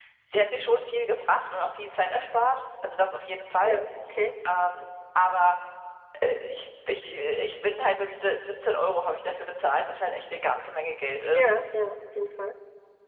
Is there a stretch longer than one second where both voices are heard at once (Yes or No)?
No